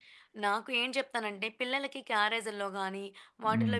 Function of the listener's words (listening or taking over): listening